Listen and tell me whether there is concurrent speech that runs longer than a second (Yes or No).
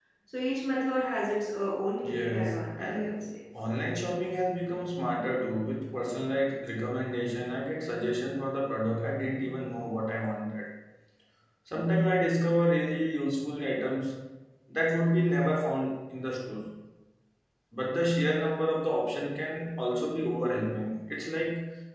Yes